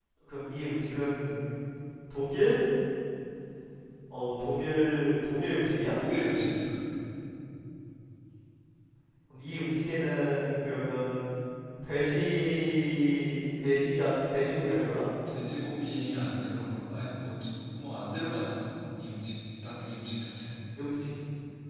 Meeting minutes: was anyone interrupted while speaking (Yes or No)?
No